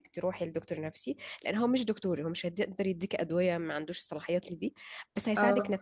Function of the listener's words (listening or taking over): listening